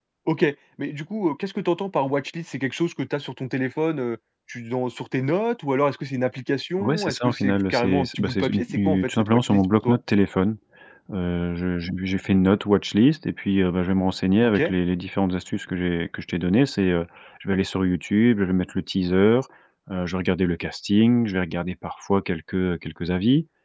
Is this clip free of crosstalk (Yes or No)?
No